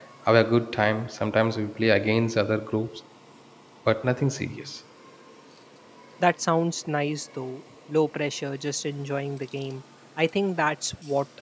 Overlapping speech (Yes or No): No